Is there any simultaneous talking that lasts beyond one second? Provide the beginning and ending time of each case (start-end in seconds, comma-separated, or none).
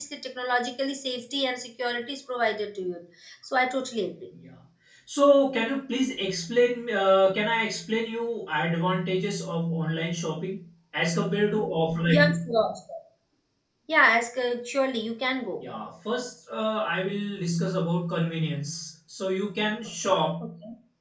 none